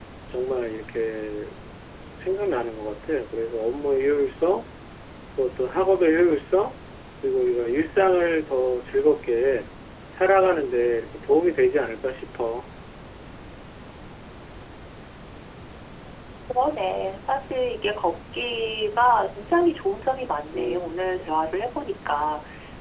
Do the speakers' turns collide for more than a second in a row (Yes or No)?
No